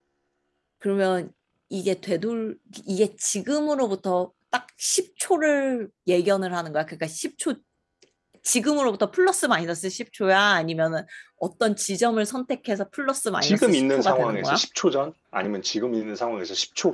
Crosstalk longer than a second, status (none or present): present